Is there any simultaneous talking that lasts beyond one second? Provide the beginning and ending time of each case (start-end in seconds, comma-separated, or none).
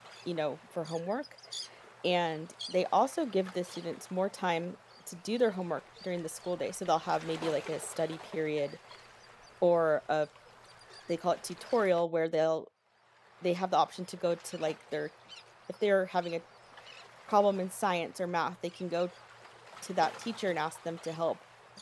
none